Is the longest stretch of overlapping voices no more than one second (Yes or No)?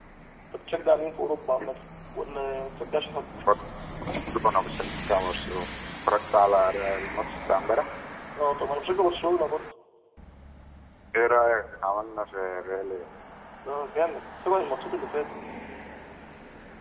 Yes